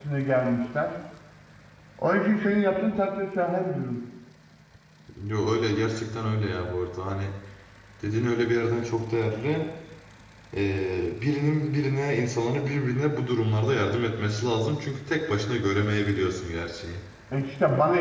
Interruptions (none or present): none